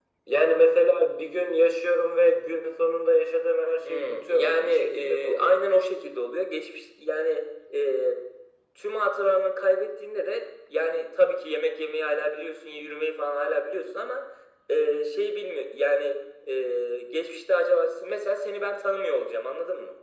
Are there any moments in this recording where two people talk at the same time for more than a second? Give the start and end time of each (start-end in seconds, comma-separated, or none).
3.9-5.5